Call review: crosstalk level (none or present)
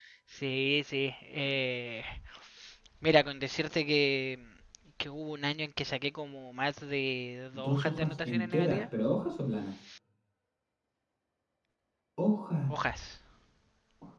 present